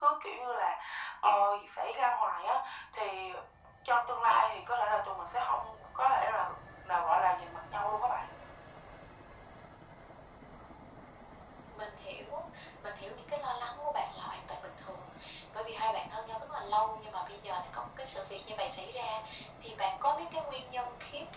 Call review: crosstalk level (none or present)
none